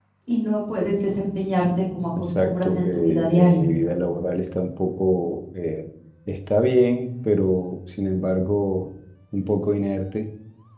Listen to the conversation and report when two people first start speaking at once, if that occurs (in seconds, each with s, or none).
2.2 s